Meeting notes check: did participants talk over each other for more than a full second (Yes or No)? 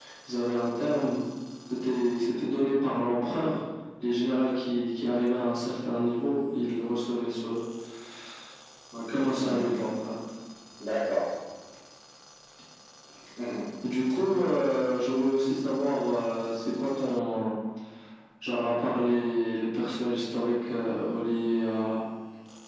No